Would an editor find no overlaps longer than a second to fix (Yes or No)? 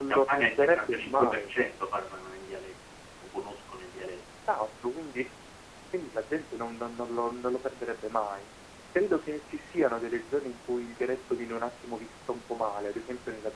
No